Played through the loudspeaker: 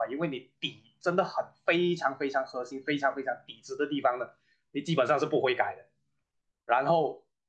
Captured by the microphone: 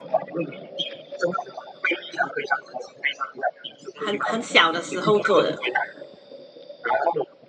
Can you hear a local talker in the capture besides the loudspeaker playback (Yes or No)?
Yes